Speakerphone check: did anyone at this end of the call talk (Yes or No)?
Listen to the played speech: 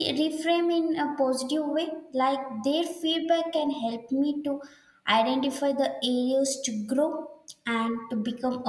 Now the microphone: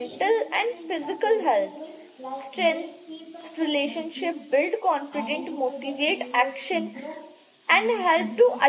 Yes